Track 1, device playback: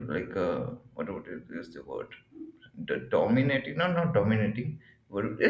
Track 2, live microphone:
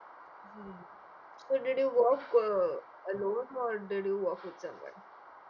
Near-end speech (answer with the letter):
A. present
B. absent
A